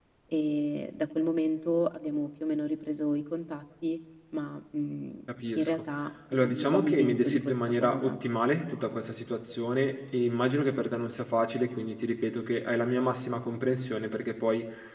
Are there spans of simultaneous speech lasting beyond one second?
Yes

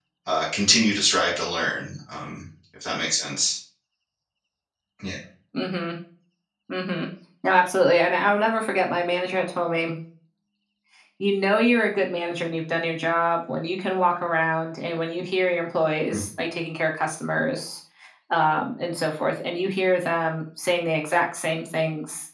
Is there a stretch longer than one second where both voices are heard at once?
No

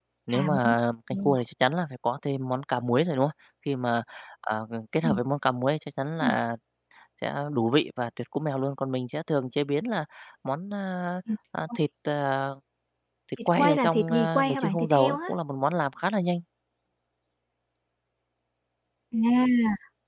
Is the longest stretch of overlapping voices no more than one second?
No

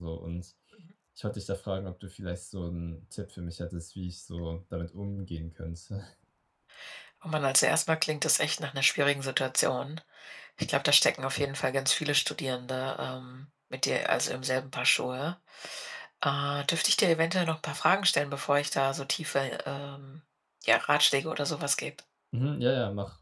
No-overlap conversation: Yes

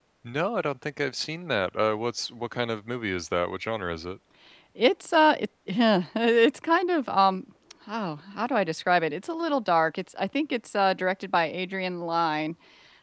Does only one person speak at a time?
Yes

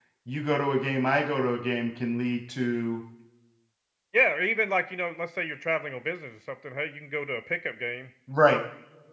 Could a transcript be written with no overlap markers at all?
Yes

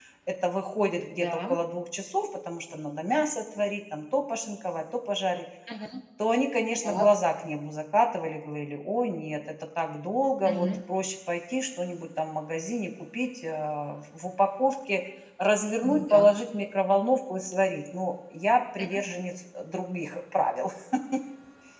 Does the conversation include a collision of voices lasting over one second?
No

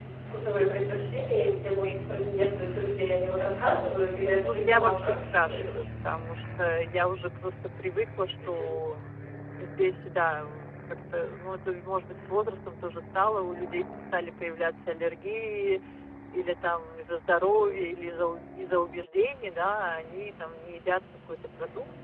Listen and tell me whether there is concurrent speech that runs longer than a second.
Yes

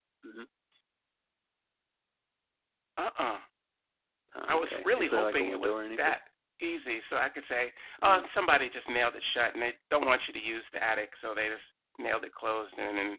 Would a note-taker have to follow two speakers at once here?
Yes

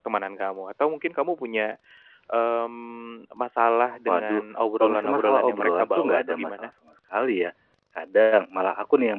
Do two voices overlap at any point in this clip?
Yes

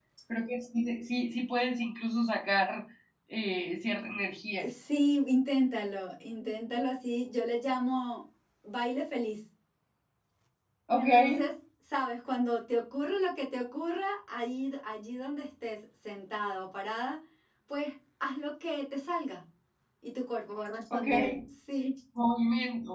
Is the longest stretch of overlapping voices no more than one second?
Yes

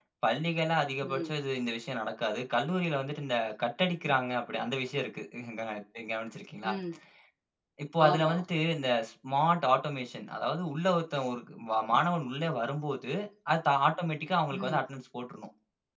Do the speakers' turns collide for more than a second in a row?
No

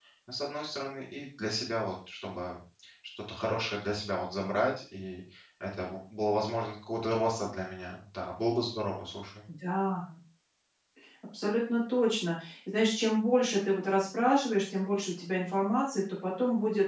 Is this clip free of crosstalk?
Yes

